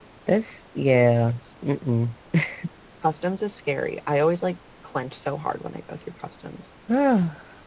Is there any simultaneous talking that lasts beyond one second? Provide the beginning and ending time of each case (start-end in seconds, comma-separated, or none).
none